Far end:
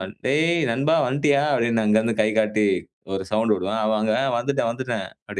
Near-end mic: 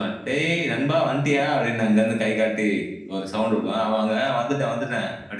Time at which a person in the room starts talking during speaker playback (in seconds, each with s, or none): none